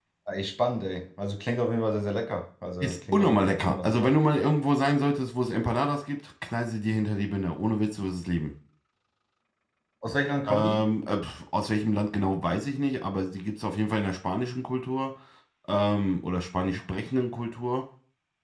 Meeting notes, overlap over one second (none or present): present